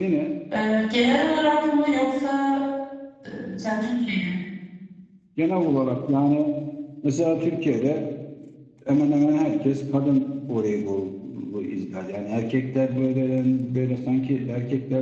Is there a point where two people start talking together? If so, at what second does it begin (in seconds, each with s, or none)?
none